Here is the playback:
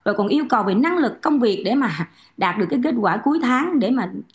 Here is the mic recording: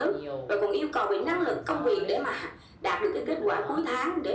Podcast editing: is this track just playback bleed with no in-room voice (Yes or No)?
No